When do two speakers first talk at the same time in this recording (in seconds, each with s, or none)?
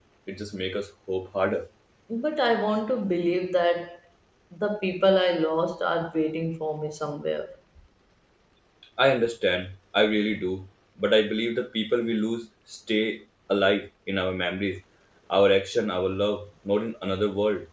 none